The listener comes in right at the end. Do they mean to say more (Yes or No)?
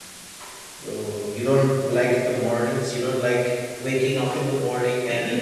Yes